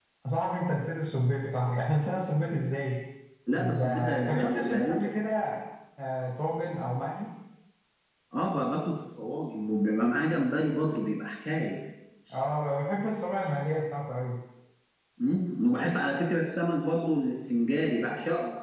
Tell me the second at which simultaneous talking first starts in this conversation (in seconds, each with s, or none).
3.5 s